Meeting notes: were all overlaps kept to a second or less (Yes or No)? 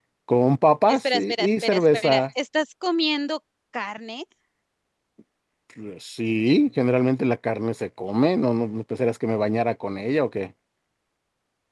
No